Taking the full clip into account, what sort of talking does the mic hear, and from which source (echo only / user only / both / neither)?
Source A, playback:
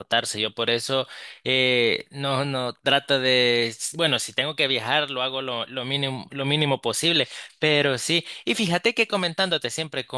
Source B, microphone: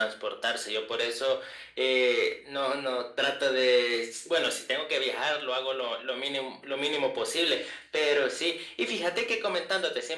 echo only